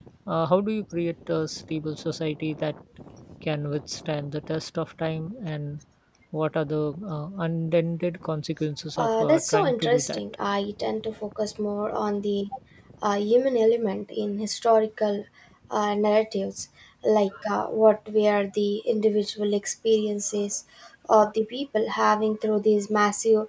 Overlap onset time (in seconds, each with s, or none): 9.0 s